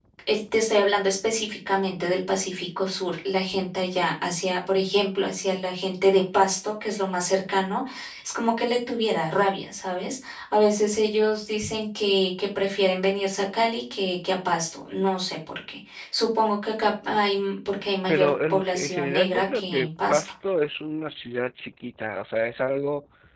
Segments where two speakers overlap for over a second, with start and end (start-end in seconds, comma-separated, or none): 18.1-20.2